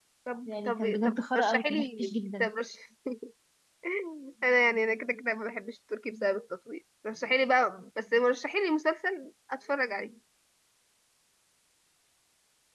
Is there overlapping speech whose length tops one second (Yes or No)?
Yes